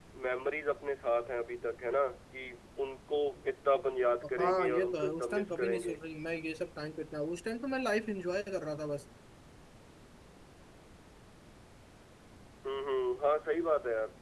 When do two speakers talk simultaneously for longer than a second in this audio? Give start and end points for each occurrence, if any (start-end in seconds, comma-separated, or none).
4.4-5.9